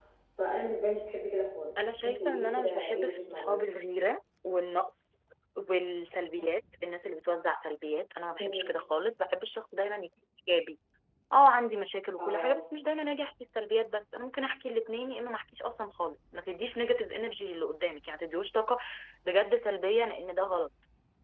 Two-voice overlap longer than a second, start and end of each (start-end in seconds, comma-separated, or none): 1.8-3.6